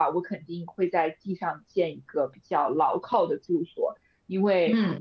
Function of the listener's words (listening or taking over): listening